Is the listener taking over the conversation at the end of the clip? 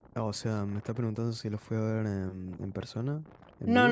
Yes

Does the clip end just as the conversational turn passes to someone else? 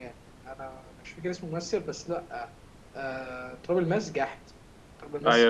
Yes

